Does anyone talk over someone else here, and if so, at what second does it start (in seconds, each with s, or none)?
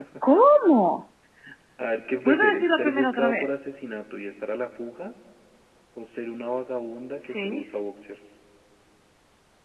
2.2 s